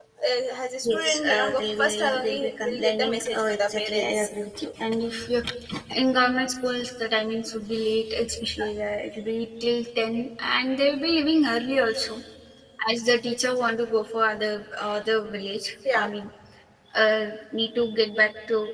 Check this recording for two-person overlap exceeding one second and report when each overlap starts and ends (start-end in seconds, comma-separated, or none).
0.8-4.3